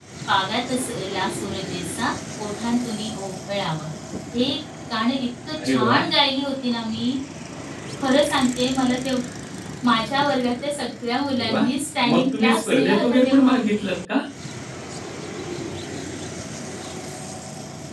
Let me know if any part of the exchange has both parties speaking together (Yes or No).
Yes